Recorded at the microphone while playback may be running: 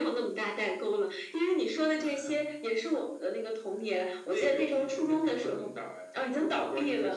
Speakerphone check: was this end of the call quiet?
Yes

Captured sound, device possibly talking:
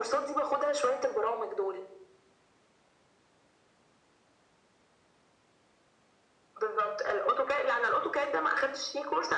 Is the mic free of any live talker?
Yes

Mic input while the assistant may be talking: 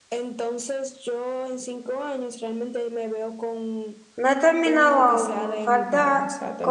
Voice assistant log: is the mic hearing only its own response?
No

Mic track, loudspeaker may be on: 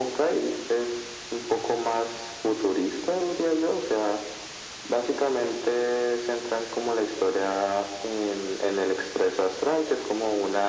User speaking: No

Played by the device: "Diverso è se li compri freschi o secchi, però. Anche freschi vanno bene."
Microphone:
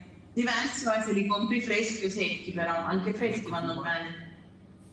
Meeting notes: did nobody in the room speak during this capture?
No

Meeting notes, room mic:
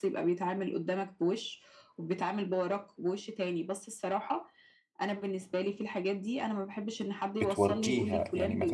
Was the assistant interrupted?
Yes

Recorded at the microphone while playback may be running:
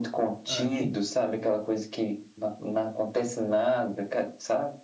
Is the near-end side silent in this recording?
No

